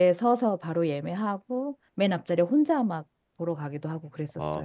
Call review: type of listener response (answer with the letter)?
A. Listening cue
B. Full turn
B